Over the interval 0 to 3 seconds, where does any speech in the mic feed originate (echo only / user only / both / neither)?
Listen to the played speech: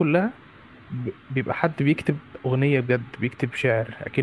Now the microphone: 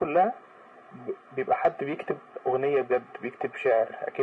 echo only